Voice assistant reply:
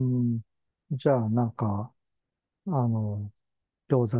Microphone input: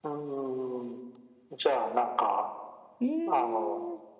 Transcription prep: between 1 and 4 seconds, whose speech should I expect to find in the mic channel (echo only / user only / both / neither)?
both